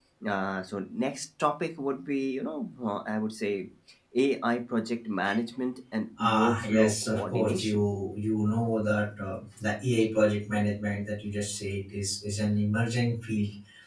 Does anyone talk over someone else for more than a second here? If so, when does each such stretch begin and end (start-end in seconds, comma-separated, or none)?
6.2-7.8